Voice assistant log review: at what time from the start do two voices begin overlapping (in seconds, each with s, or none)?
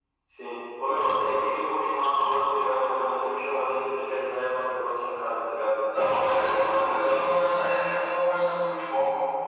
5.9 s